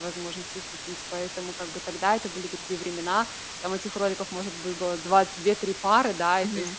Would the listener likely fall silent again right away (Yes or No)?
Yes